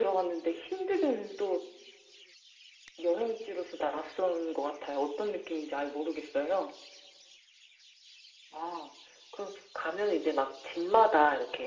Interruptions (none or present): none